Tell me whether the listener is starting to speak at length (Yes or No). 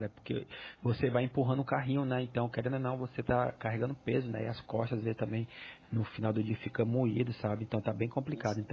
No